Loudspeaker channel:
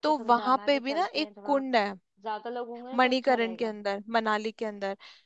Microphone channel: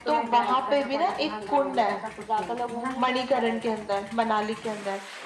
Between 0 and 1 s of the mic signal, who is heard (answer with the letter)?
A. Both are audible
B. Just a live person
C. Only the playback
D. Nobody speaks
A